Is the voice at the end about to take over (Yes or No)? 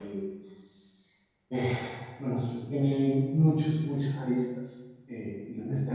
No